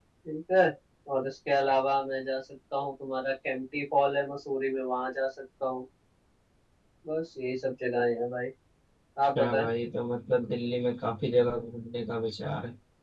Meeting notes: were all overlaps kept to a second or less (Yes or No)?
Yes